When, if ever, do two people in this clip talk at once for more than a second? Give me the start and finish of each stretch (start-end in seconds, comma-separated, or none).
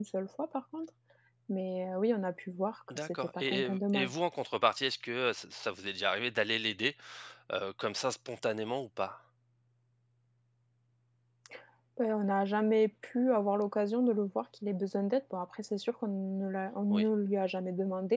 2.9-4.1